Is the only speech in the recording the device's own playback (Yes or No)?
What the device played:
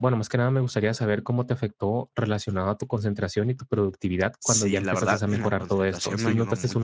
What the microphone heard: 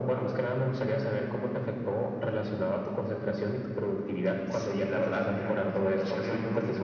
Yes